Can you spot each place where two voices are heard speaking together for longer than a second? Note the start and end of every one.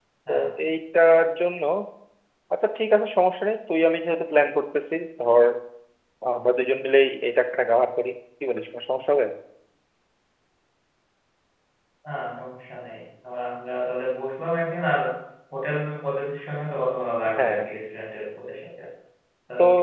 none

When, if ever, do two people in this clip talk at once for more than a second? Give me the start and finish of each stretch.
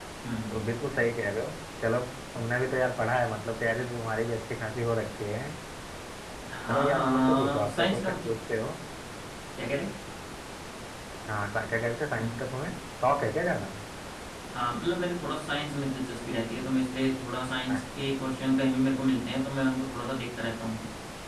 6.7-8.3

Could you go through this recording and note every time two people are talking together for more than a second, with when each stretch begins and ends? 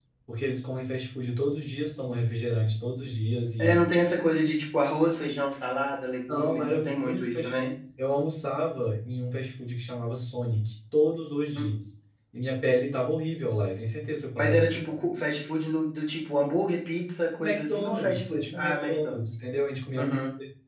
6.3-7.7, 17.4-19.3

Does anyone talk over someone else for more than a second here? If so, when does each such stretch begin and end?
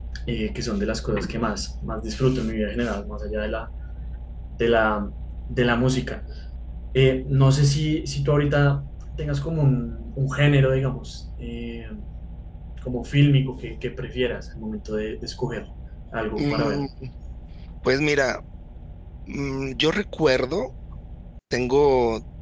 none

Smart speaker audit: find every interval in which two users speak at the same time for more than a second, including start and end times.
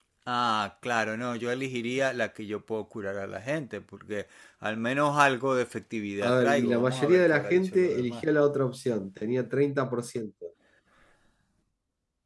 6.2-8.2

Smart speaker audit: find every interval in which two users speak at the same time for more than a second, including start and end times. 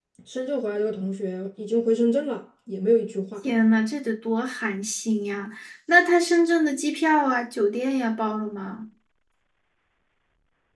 none

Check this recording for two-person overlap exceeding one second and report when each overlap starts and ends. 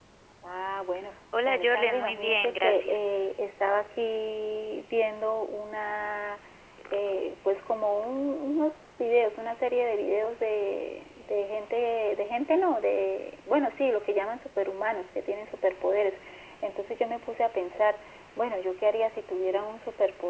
1.5-3.0

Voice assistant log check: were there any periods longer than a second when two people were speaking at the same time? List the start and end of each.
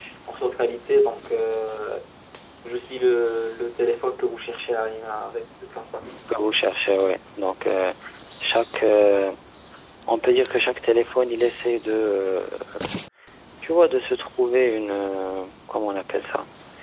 none

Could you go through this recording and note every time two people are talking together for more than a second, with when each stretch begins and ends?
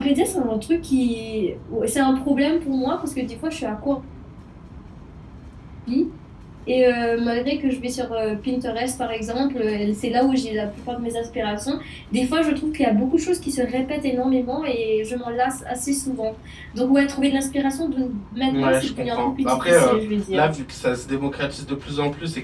18.5-20.0

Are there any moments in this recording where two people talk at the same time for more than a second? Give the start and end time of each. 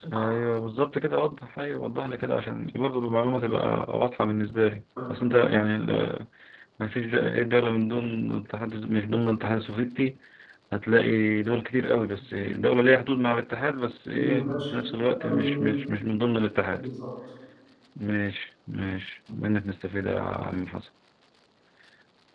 none

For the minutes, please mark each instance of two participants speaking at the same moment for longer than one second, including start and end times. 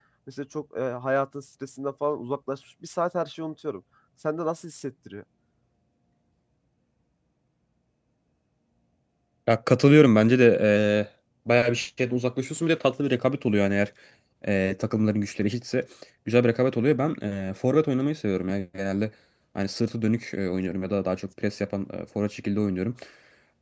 none

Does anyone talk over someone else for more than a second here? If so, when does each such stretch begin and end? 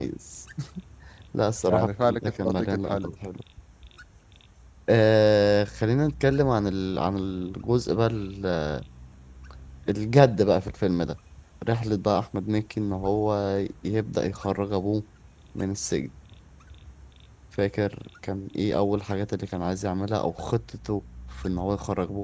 1.7-3.1

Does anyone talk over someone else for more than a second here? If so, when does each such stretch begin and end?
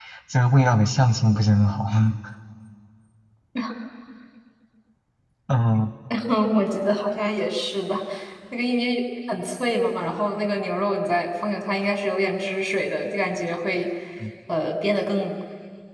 none

